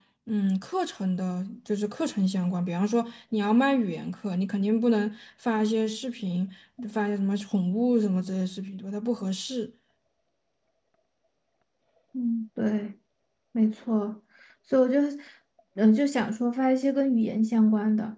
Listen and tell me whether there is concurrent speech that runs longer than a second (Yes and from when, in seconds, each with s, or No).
No